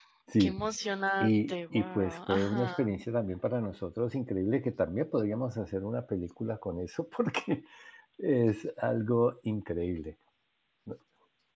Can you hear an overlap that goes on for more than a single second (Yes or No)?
Yes